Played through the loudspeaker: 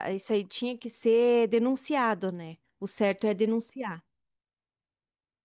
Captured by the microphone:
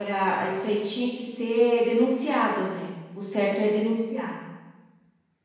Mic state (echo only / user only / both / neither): echo only